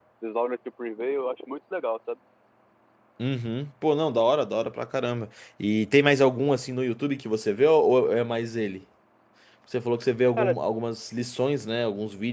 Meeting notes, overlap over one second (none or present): none